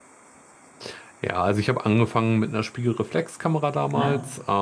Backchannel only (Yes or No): Yes